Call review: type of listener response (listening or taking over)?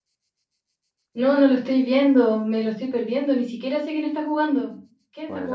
taking over